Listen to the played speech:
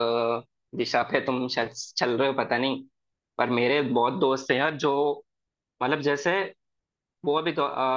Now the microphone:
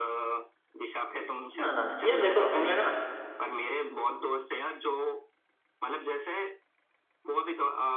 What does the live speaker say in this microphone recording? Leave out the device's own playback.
ना ना ना यार देखो हमने ना

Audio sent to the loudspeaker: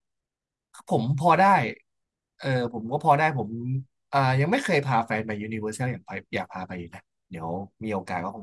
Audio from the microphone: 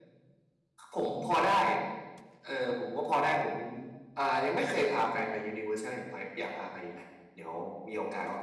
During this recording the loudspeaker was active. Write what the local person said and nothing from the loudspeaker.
none

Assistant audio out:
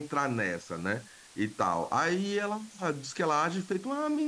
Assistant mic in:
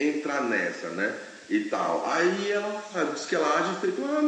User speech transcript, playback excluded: none

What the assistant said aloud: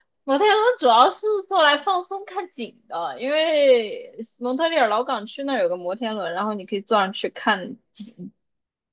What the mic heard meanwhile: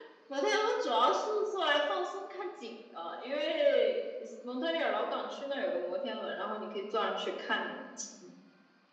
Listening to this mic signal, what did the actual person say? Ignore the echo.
none

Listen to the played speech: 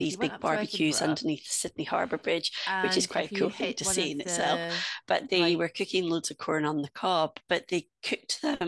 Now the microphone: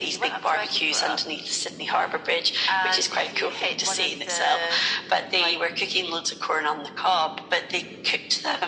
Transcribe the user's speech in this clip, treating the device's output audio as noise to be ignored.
none

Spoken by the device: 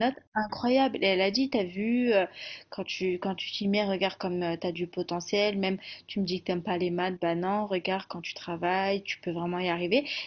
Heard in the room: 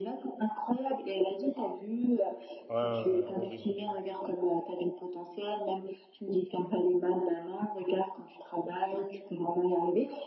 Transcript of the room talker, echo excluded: Ouais, ouais, ouais, horrible.

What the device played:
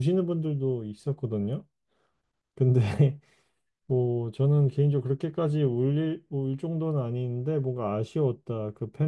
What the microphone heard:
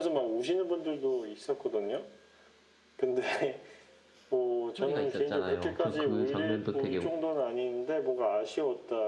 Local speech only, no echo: 스토리가 있었잖아요. 저 그 장면도 되게

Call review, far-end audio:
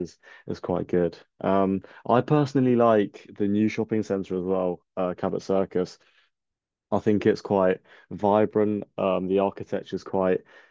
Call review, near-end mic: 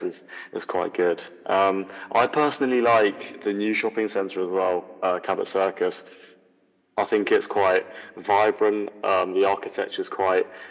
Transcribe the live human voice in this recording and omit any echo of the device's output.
none

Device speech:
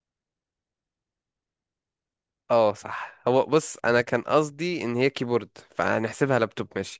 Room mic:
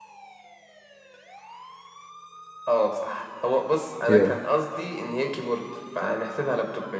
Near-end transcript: يلا

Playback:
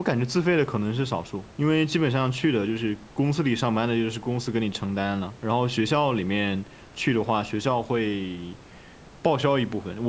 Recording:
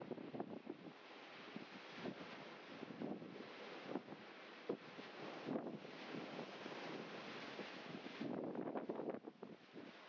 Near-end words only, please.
none

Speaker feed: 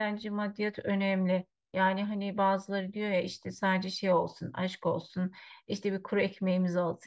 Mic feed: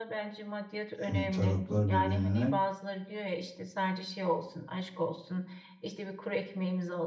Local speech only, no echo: e, taraflar birbirine

